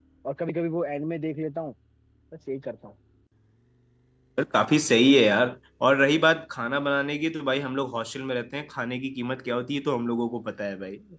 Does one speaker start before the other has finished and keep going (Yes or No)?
No